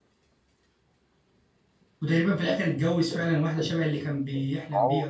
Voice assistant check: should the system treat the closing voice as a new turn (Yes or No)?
Yes